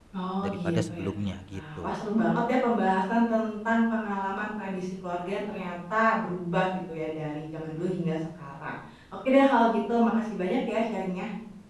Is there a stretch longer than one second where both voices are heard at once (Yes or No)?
Yes